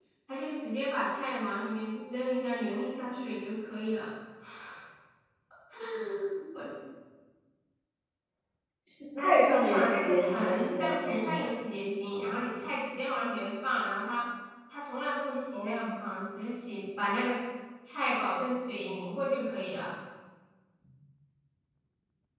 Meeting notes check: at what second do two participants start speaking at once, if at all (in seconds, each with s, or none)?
9.2 s